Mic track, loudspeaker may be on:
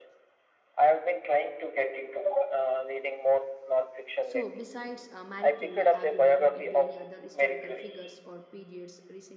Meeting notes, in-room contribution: present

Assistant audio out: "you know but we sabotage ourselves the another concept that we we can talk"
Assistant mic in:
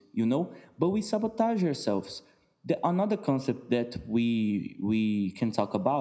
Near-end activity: none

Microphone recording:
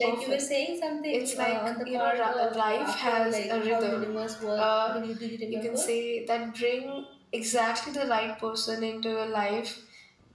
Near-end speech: none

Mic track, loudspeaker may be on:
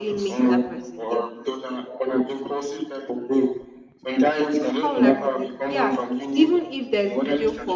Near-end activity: present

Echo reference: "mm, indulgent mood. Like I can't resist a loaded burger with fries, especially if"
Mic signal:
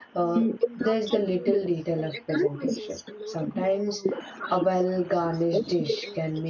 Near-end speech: present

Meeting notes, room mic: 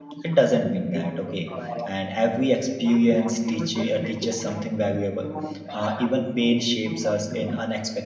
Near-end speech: present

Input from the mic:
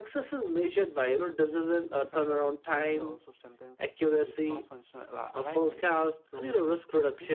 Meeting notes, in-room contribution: present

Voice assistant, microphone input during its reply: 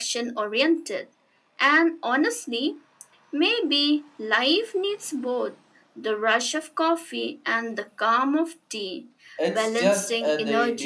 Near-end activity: present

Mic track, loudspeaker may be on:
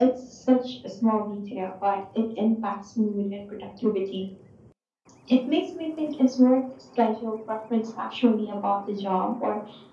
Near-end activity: none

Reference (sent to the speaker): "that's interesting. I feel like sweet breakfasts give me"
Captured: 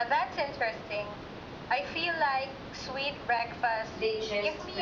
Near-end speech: present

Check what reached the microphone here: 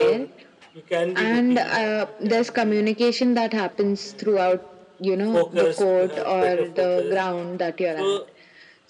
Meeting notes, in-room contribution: present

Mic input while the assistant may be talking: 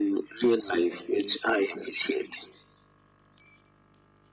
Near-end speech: none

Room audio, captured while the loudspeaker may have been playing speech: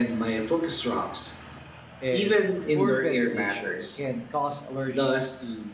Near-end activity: present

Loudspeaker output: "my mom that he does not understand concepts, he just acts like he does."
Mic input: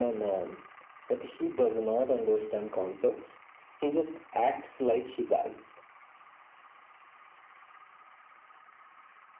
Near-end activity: none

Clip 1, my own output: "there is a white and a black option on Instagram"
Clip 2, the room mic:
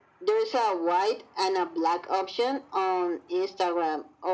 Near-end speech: none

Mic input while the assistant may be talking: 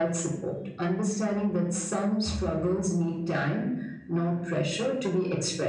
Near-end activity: none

